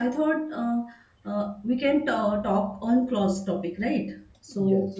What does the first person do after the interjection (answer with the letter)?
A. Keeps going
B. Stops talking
A